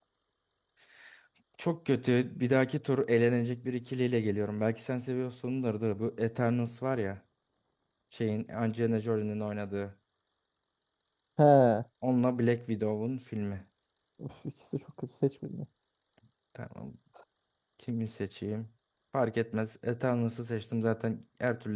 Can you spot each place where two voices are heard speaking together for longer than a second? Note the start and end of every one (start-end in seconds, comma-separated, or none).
none